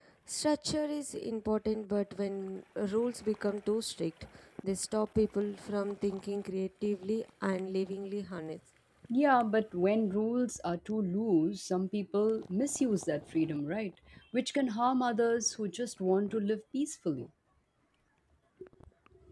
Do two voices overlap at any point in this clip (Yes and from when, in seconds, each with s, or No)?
No